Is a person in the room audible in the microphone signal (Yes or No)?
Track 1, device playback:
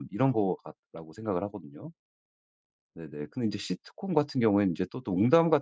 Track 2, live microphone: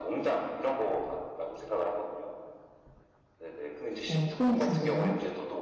Yes